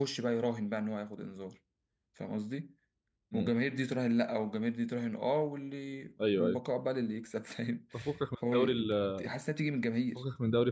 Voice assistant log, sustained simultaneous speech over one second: none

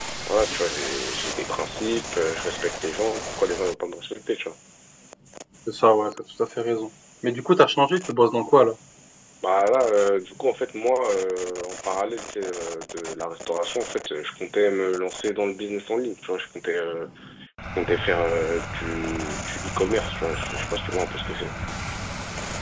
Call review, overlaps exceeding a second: none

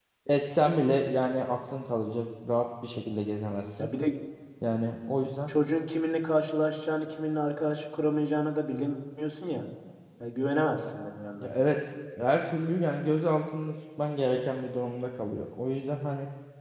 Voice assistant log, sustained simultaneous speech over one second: none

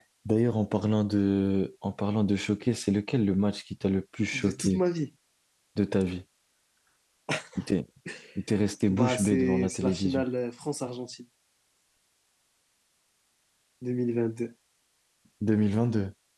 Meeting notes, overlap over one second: present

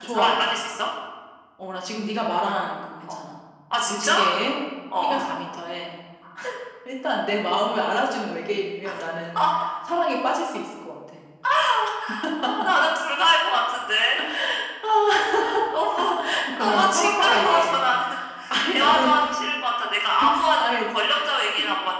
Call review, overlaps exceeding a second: present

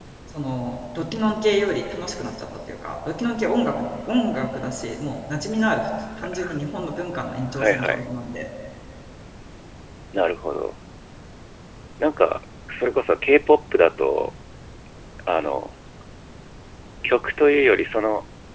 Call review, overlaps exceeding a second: none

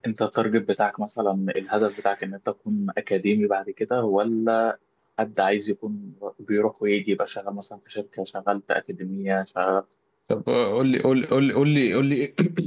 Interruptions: none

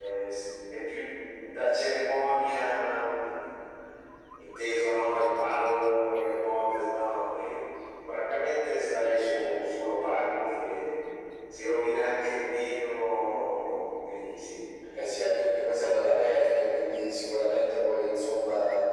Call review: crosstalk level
none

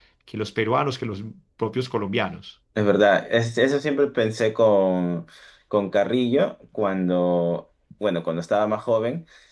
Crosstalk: none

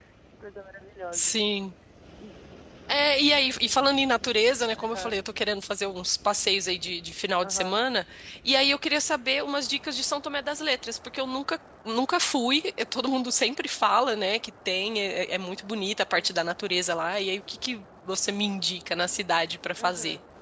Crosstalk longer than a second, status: none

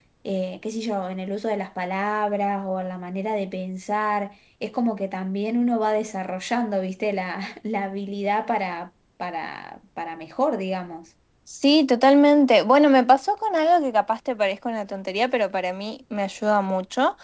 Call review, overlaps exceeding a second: none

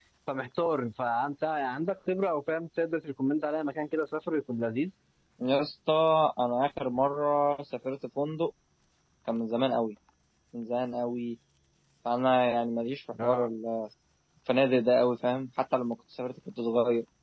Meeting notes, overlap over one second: none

